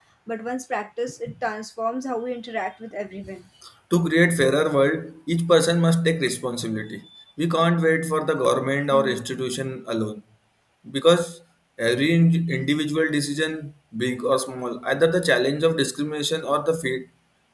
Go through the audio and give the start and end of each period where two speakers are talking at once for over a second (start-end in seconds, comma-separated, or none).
none